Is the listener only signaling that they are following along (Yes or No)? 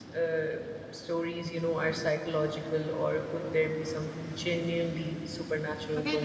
No